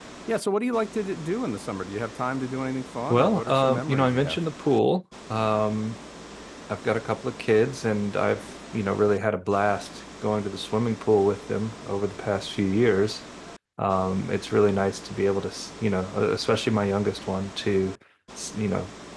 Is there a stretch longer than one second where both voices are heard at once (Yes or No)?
Yes